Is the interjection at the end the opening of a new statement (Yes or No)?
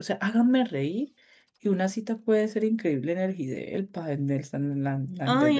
Yes